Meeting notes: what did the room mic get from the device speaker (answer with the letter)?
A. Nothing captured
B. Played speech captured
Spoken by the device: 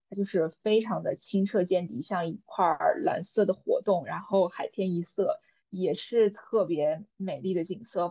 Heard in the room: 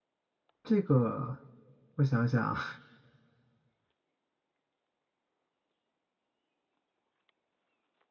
A